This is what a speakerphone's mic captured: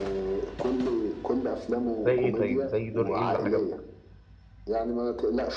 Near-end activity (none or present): present